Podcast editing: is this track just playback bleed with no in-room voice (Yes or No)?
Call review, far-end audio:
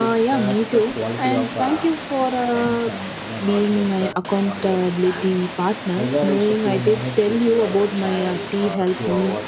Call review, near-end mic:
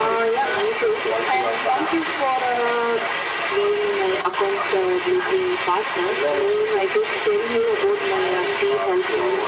Yes